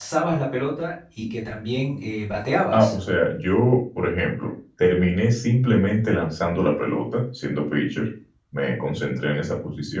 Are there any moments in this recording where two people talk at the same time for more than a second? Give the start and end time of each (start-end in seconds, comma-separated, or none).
none